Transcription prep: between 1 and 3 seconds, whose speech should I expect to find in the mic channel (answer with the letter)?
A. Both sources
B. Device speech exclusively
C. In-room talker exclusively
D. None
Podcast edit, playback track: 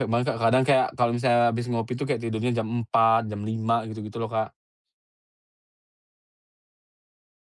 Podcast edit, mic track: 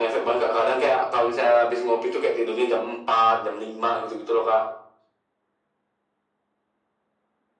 B